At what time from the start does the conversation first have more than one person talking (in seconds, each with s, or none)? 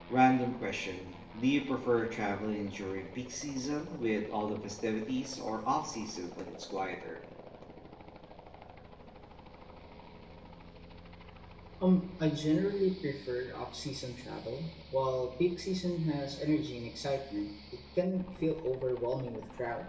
none